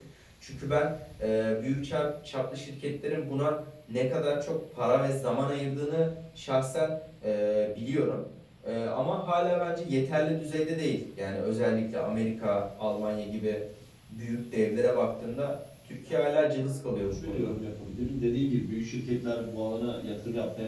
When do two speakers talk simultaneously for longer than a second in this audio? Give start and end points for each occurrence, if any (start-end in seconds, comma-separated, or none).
16.1-17.5